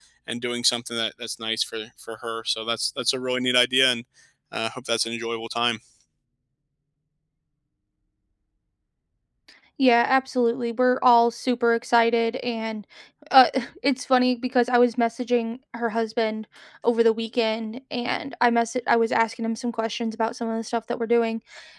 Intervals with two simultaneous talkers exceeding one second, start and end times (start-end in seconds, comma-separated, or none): none